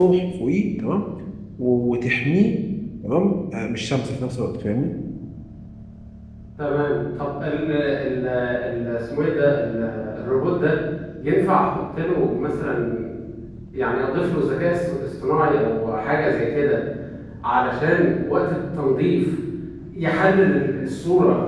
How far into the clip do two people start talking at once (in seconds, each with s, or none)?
none